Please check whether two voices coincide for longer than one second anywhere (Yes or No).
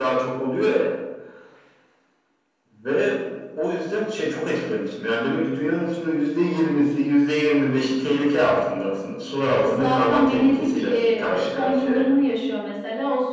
Yes